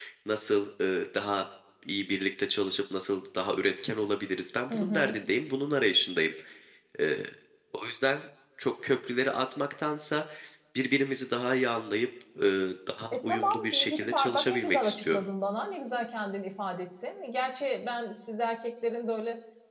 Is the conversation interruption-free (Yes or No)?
No